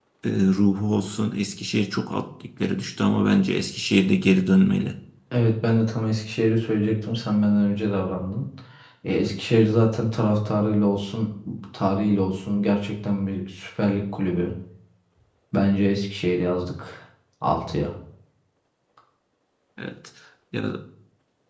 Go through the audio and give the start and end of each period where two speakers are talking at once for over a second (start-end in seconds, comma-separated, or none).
none